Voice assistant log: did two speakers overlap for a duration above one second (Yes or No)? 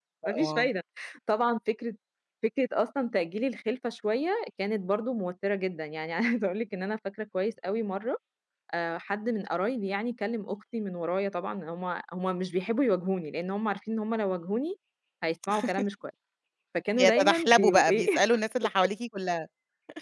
Yes